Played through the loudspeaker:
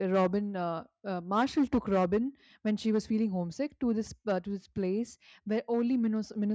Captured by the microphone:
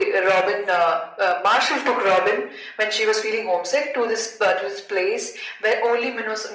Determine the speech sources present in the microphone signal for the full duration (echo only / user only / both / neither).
echo only